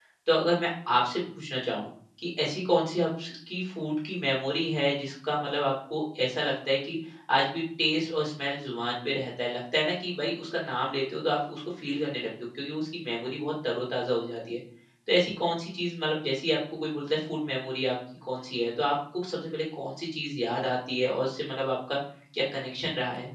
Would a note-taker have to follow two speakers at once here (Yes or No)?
No